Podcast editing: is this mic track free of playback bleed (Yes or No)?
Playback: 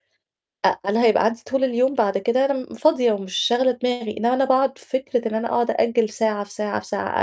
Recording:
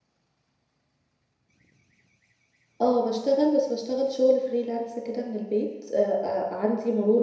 Yes